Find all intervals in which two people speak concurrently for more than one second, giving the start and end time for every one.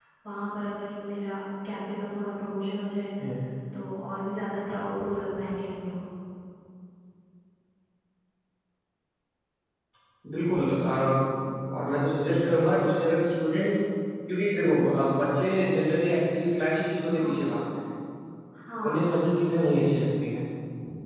none

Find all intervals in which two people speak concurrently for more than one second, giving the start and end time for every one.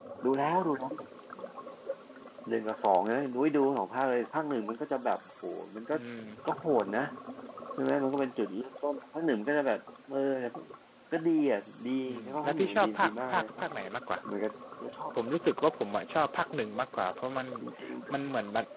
12.1-13.5

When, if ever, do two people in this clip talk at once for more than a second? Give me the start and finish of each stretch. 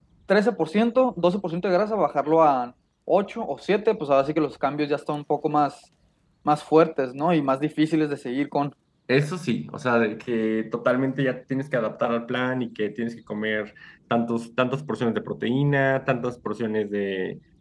none

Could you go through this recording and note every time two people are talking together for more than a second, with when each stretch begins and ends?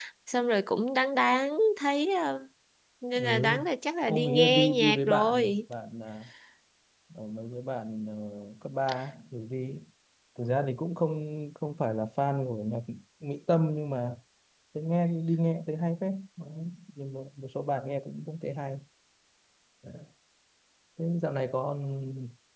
4.1-5.6

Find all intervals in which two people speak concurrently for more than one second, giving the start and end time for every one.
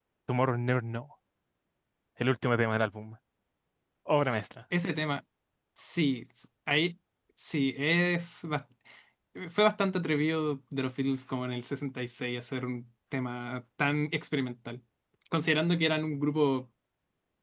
none

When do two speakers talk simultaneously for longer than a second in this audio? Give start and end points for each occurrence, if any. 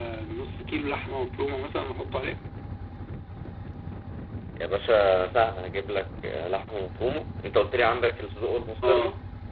none

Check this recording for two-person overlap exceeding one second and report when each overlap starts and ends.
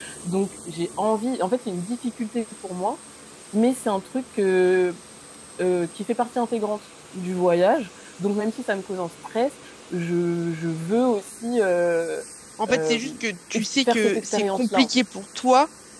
13.6-14.9

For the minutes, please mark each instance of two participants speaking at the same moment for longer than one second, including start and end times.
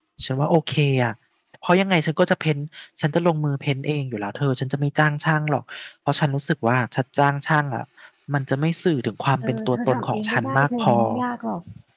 9.4-10.9

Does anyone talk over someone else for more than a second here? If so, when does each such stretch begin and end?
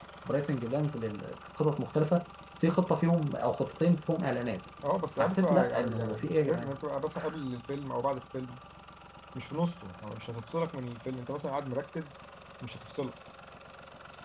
5.2-6.8

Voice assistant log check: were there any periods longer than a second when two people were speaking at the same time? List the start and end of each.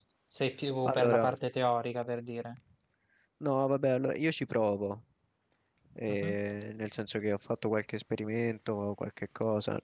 none

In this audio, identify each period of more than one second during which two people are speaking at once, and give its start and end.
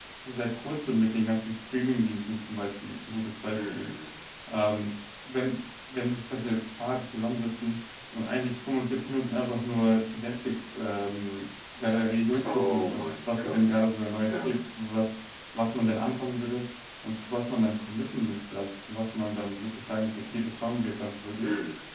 12.4-13.8

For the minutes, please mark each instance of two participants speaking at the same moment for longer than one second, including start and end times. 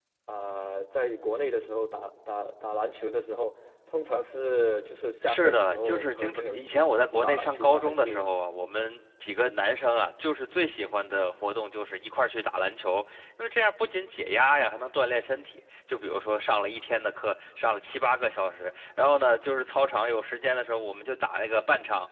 5.2-8.3

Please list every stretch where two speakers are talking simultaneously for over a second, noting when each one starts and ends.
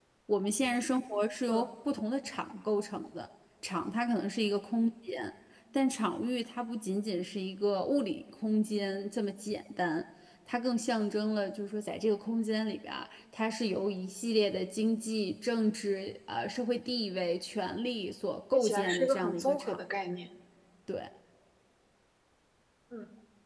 18.5-19.8

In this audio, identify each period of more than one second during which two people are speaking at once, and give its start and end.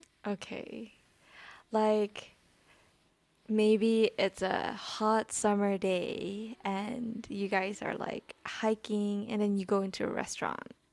none

